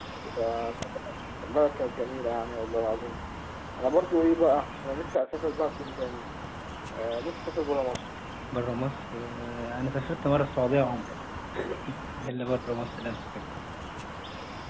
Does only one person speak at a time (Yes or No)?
Yes